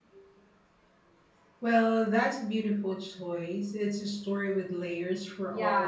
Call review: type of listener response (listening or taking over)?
taking over